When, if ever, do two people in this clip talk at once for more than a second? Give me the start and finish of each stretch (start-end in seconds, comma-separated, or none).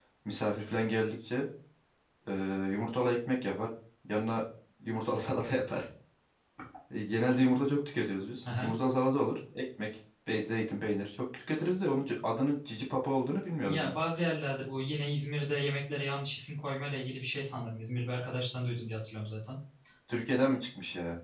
none